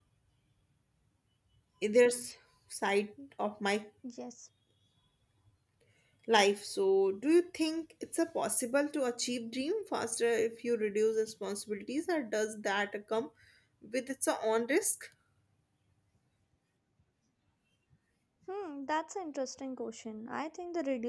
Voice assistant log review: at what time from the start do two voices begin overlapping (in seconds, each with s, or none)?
none